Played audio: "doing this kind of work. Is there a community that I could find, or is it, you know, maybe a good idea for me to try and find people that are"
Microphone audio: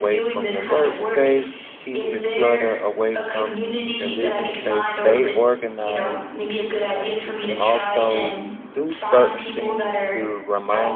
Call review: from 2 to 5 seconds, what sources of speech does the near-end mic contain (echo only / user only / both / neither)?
both